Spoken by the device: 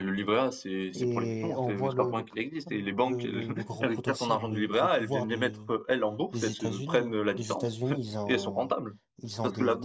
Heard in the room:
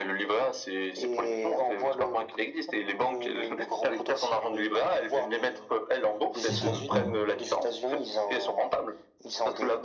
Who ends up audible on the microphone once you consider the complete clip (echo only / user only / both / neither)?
both